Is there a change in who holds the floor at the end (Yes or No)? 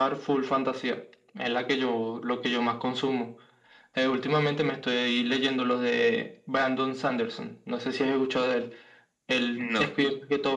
No